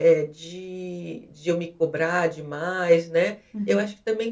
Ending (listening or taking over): listening